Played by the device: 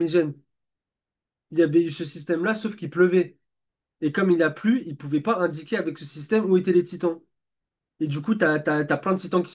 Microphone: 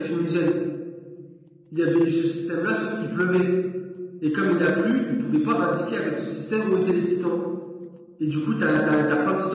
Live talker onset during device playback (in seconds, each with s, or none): none